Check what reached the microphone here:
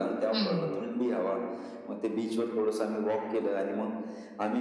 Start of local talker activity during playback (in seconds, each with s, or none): 0.3 s